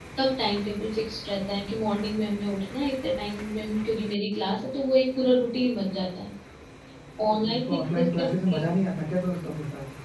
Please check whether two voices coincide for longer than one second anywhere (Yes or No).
Yes